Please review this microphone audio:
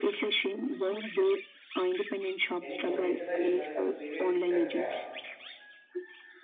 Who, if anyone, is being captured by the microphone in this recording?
both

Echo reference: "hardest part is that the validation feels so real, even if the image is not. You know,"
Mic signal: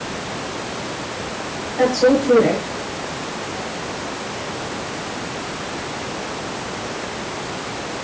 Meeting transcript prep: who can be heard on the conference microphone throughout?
user only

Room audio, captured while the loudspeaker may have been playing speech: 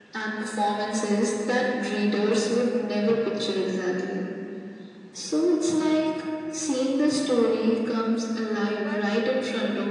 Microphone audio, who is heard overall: both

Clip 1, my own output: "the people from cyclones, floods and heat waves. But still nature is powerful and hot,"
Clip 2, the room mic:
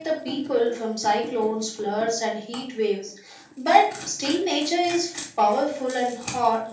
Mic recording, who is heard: echo only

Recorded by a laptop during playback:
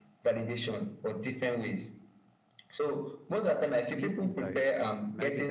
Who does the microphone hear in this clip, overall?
both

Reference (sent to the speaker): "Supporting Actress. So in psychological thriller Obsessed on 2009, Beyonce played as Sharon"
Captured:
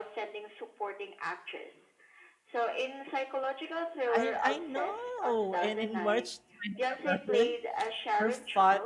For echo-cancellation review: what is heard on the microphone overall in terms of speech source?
both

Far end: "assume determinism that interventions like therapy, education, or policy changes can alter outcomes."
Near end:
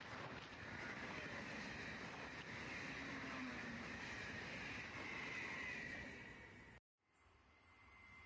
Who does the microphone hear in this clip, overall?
neither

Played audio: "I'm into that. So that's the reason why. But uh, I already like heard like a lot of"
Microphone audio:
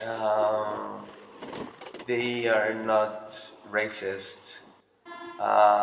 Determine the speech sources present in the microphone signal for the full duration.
user only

